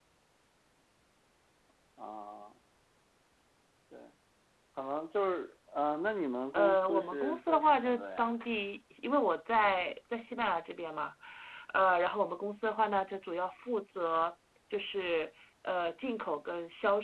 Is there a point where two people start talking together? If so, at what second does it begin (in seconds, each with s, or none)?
6.5 s